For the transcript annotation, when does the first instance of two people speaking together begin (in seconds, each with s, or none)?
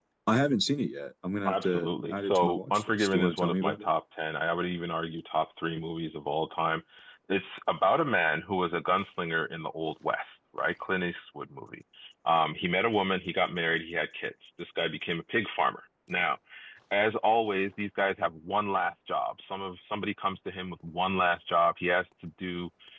1.4 s